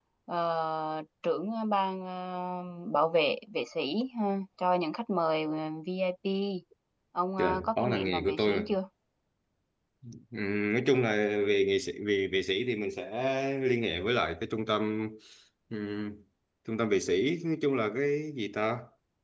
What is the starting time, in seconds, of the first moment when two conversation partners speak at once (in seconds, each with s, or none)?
7.4 s